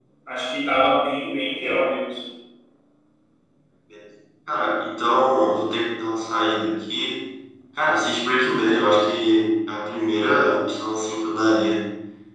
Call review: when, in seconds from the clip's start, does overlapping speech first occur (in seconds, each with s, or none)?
none